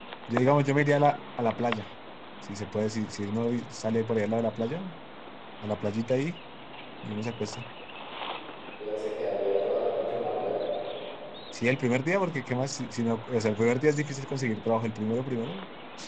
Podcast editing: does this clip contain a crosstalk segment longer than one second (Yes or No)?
No